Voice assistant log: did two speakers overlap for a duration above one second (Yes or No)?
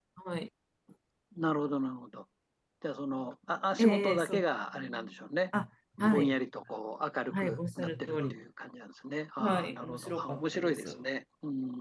Yes